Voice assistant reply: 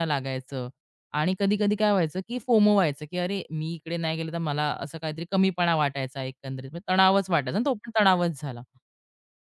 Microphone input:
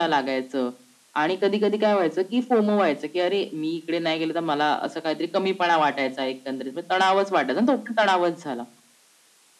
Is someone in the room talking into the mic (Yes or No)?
No